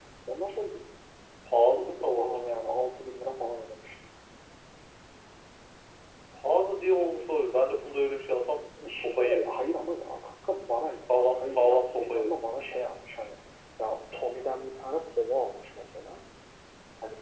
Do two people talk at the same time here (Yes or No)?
Yes